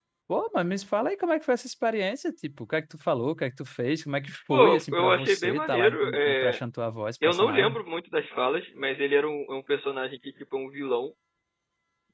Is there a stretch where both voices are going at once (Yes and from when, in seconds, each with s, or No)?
Yes, from 4.5 s